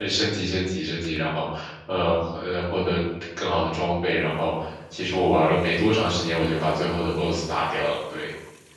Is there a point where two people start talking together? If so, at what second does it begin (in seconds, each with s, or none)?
none